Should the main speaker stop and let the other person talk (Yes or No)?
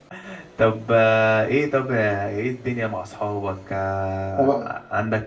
No